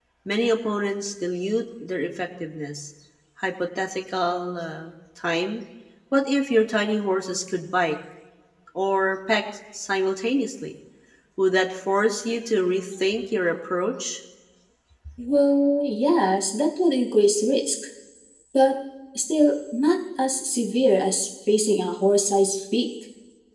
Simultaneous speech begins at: none

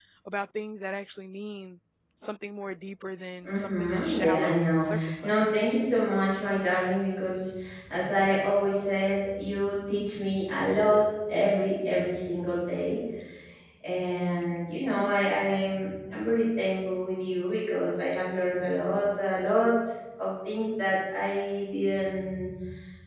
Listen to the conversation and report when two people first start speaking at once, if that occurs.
3.4 s

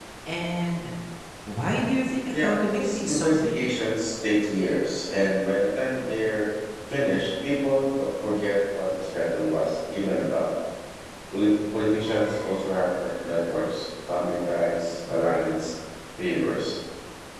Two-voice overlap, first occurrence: 2.3 s

